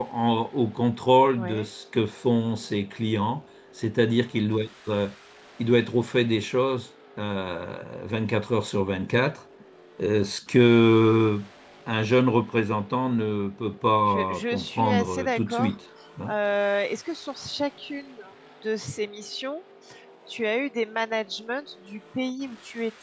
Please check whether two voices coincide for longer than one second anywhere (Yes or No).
Yes